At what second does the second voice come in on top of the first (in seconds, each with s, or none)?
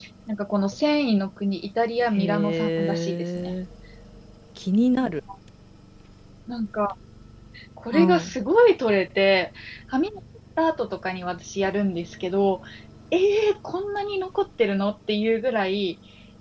2.1 s